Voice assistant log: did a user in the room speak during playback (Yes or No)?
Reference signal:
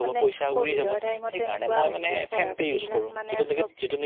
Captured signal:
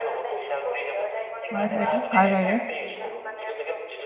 Yes